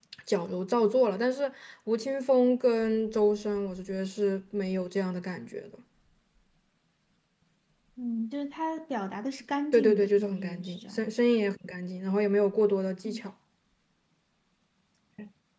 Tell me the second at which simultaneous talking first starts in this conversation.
9.7 s

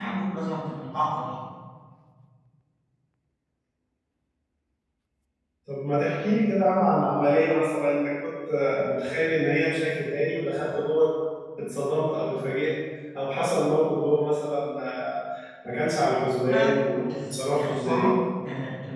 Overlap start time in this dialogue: 16.5 s

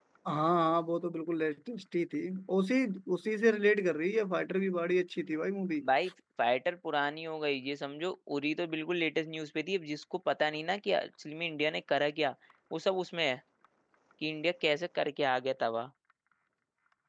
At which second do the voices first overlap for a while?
none

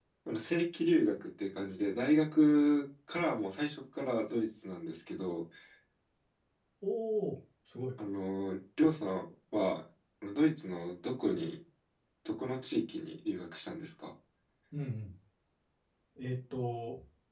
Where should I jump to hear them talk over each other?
none

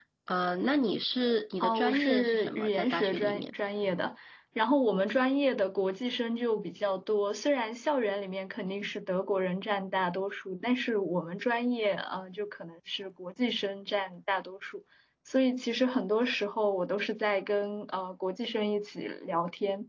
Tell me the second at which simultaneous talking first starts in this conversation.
1.6 s

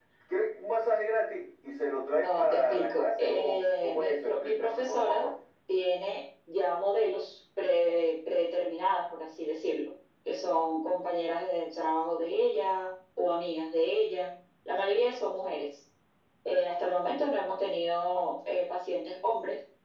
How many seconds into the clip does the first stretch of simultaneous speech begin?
2.1 s

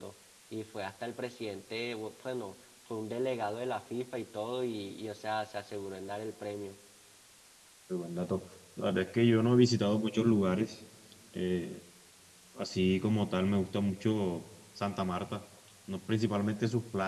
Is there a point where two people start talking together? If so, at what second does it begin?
none

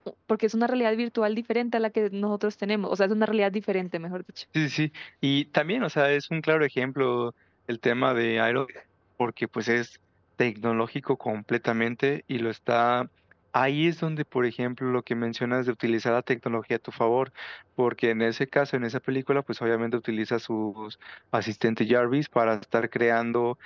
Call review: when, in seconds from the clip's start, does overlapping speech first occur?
none

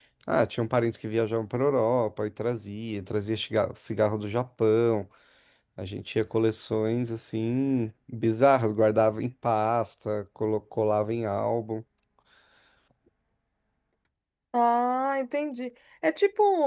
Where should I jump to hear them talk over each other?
none

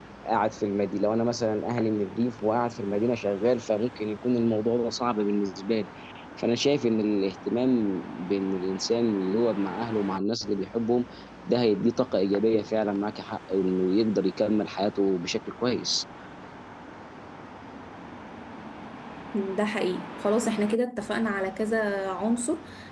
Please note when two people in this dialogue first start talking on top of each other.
none

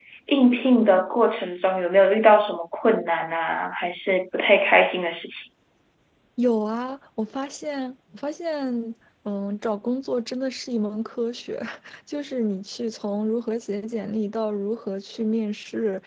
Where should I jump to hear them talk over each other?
none

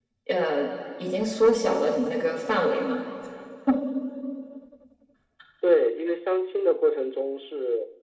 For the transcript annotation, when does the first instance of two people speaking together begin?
none

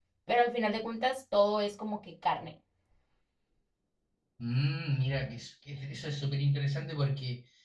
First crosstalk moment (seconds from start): none

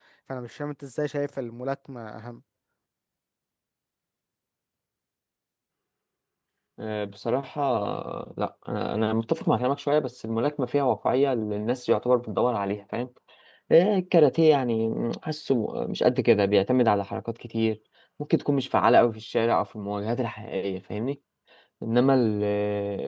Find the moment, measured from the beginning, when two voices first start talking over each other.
none

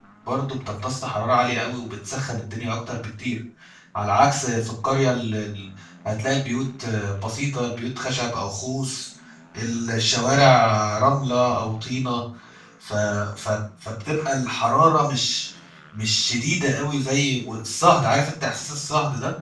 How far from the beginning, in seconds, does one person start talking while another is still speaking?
none

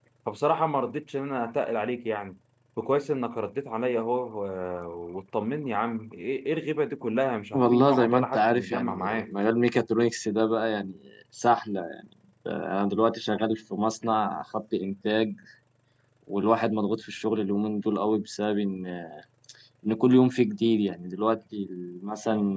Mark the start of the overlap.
7.5 s

